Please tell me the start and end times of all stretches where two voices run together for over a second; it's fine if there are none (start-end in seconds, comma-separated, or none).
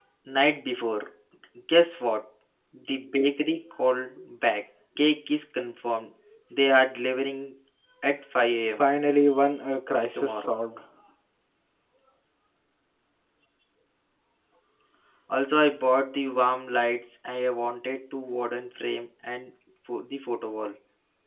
none